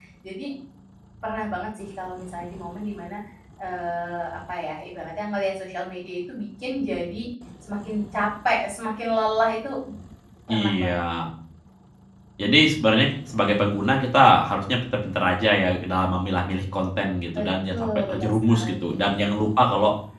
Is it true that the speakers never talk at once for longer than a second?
No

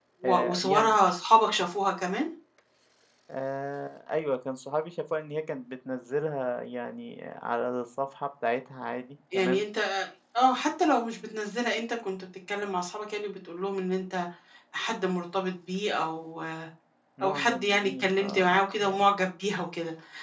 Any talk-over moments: Yes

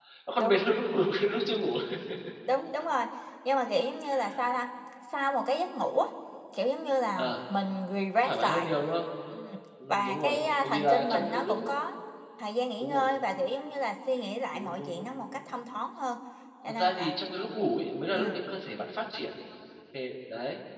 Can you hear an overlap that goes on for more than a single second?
Yes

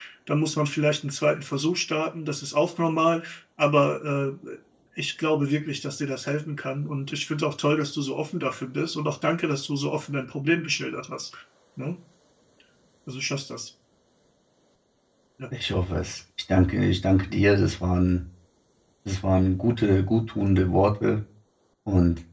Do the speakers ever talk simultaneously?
No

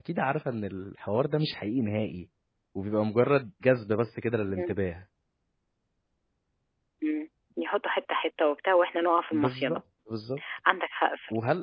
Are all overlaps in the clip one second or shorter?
Yes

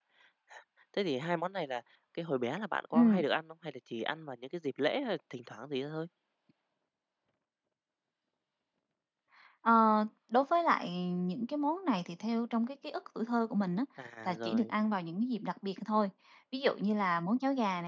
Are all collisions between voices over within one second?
Yes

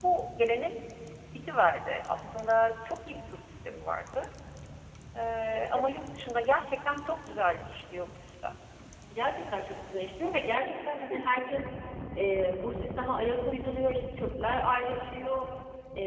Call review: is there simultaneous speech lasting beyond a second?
No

